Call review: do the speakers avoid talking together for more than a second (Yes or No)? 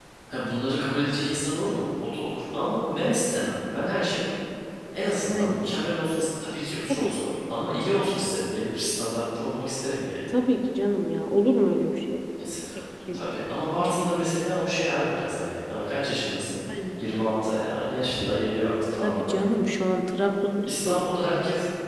Yes